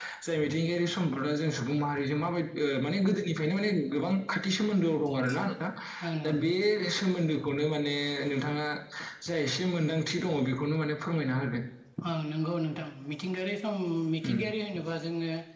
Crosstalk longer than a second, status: none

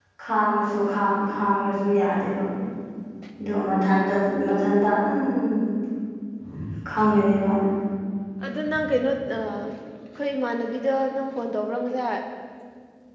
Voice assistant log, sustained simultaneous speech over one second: none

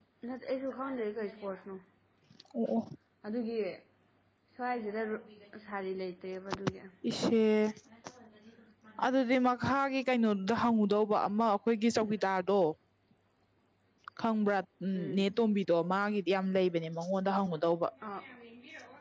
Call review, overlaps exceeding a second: none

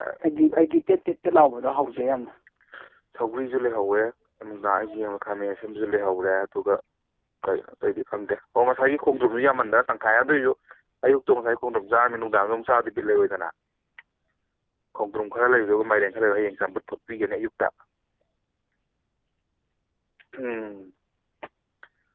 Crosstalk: none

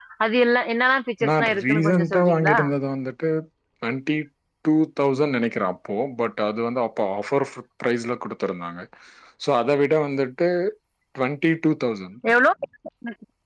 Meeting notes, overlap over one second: present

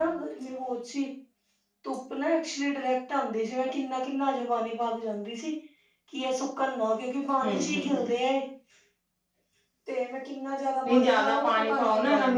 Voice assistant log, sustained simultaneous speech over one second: present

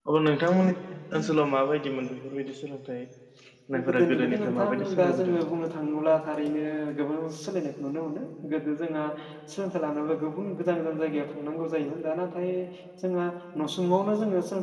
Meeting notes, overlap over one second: present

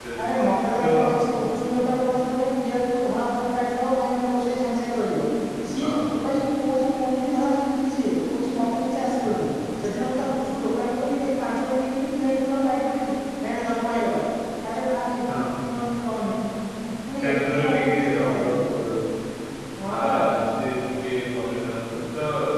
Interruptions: present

